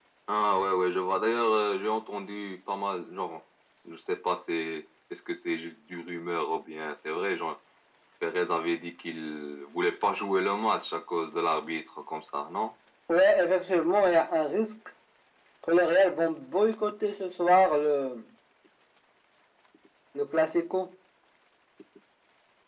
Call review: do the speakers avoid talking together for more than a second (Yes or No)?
Yes